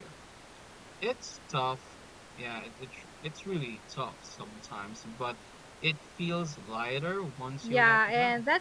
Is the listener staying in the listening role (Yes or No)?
No